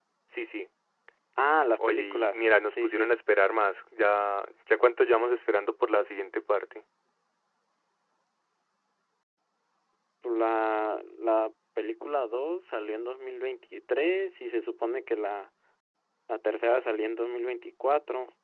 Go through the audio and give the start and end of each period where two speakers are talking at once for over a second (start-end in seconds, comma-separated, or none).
1.9-3.1